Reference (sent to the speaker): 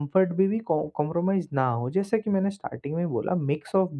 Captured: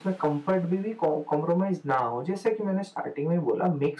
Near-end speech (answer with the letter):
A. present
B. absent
B